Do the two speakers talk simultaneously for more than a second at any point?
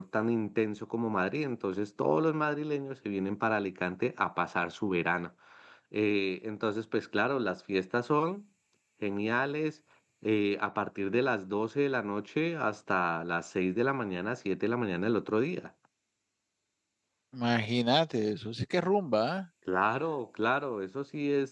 No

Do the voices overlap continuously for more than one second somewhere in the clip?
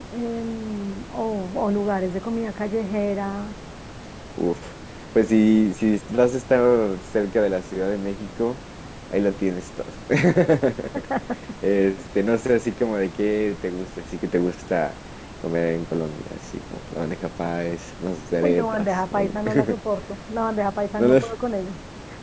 Yes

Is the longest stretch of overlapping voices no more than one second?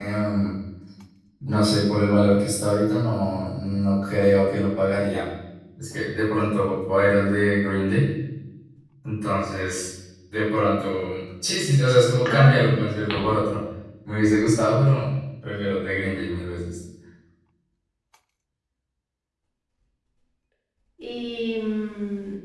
Yes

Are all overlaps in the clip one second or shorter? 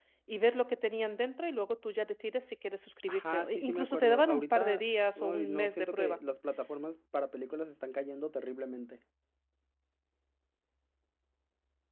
No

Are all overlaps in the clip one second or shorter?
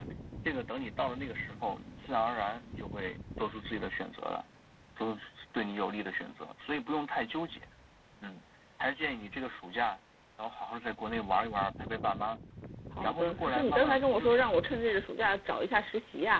No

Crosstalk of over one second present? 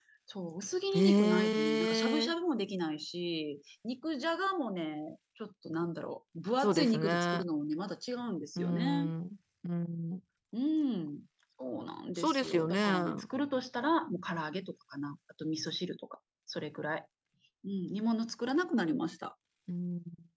Yes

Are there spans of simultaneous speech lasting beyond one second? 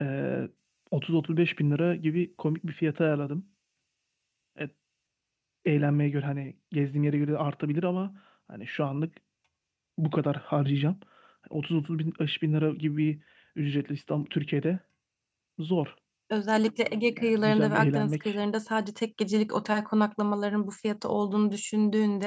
Yes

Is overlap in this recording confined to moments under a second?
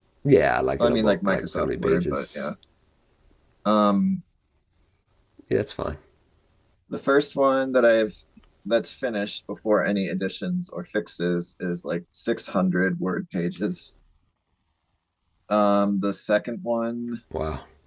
No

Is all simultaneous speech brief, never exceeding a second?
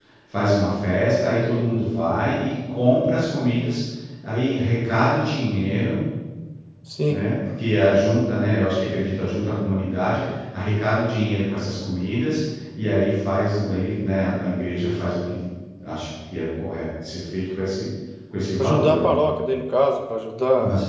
Yes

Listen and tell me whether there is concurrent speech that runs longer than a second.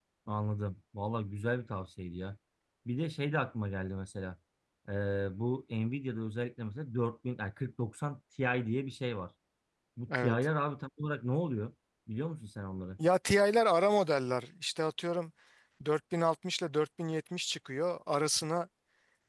No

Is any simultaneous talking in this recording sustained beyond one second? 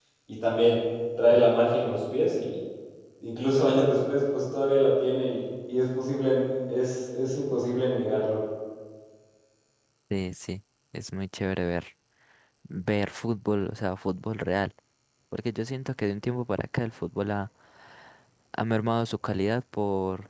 No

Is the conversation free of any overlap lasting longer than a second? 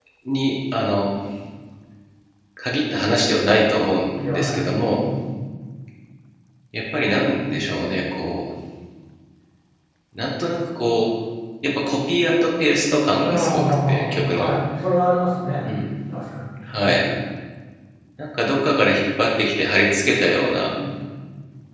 No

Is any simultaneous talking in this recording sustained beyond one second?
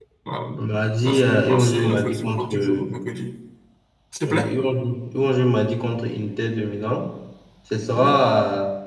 Yes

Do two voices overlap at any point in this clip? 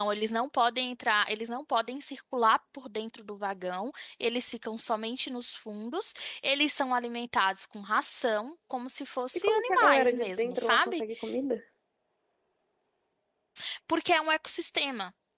Yes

